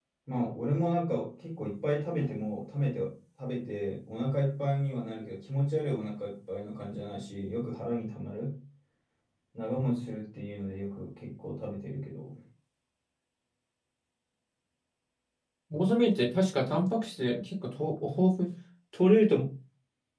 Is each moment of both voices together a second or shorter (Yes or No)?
Yes